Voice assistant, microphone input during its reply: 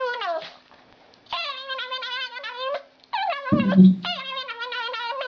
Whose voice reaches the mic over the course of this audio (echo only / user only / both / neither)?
user only